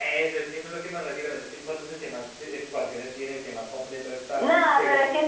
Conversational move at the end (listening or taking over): taking over